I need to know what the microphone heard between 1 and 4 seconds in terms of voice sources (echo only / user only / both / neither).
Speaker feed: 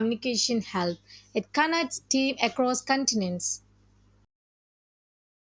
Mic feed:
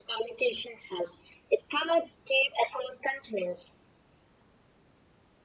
echo only